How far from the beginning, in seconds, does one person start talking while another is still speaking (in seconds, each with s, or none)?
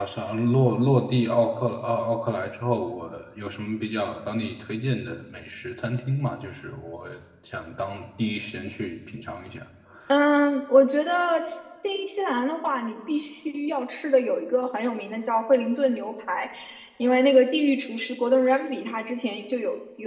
none